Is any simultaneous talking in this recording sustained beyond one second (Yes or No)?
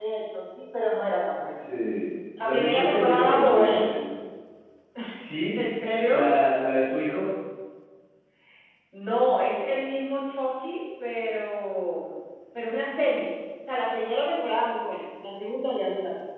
Yes